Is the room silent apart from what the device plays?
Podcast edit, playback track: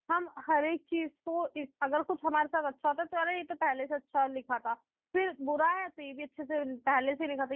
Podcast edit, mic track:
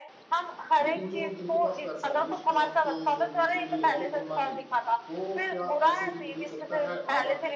No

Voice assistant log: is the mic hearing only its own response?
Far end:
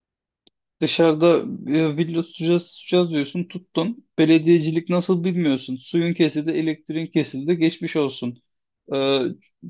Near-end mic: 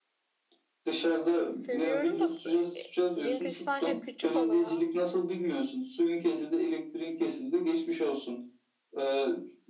No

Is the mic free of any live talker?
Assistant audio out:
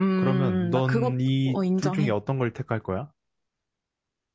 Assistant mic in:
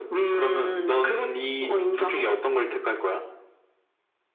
Yes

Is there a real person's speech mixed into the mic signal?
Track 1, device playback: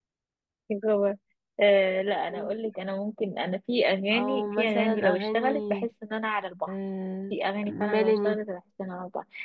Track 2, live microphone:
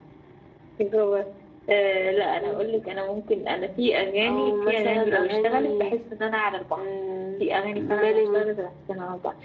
No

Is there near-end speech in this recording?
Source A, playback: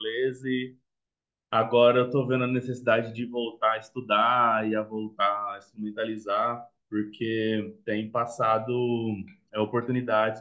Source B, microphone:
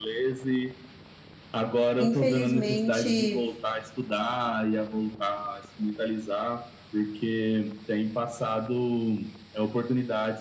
Yes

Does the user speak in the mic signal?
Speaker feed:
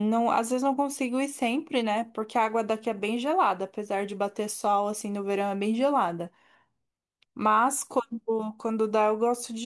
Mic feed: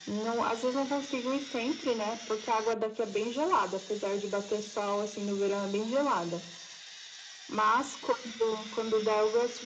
No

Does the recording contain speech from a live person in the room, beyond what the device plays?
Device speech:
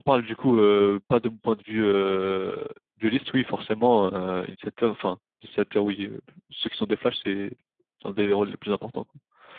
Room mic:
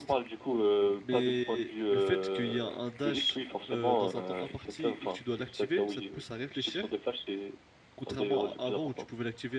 Yes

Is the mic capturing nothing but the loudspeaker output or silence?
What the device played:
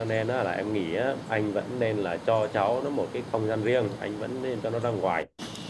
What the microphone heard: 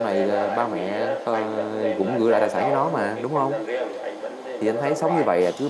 No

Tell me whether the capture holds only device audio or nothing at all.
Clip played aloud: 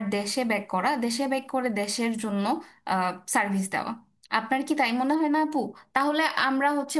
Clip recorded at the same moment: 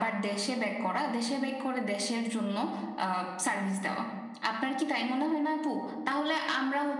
Yes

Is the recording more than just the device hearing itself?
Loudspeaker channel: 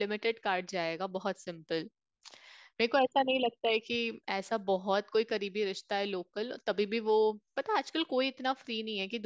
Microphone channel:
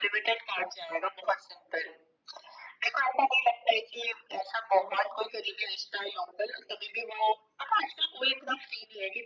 No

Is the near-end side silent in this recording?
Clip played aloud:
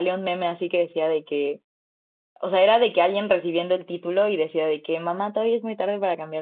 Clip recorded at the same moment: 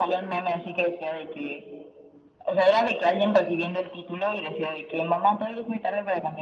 Yes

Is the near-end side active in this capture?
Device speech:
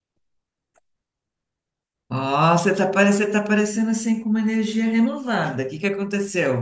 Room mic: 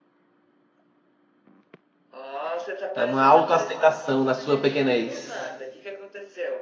Yes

